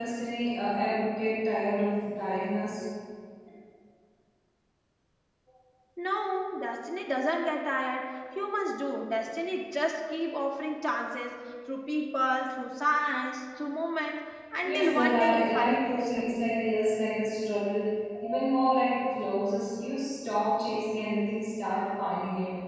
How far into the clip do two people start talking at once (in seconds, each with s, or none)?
14.6 s